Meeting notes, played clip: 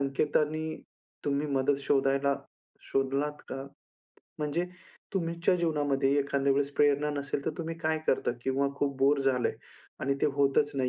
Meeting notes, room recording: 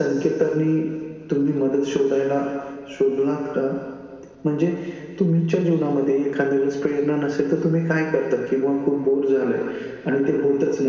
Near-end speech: none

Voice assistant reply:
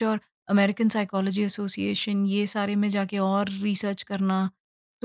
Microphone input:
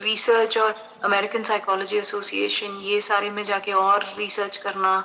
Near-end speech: none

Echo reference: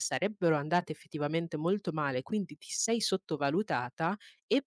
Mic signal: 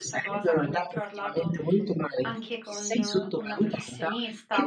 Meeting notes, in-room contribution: present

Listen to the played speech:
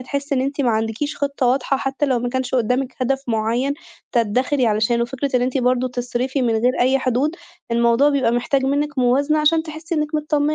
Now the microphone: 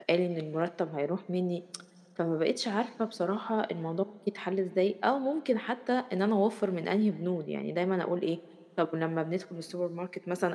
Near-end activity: present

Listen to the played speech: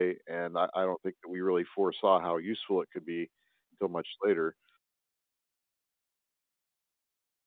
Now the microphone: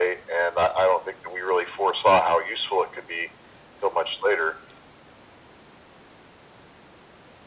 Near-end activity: none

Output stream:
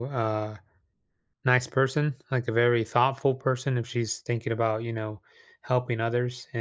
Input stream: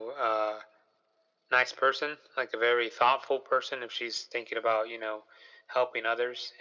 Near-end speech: none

